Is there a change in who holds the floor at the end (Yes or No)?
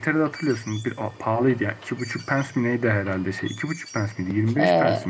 Yes